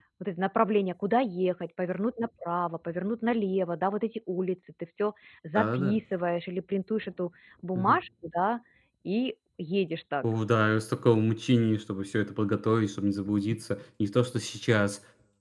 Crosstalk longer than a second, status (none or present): none